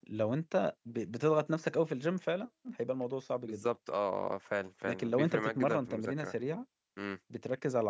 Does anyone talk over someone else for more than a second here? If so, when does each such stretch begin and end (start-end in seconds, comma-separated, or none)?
4.8-6.3